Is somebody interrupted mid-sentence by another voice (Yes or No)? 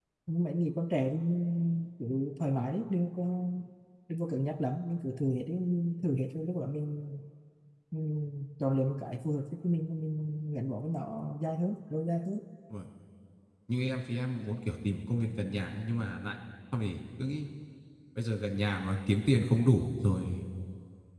No